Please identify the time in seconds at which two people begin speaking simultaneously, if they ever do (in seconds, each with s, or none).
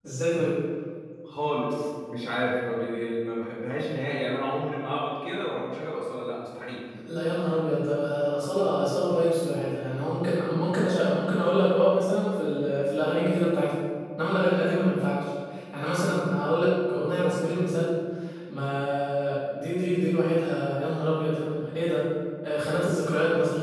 none